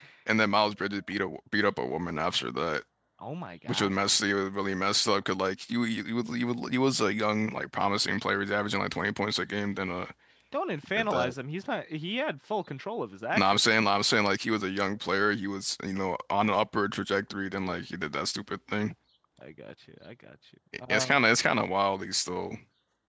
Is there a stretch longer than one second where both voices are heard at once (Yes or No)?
No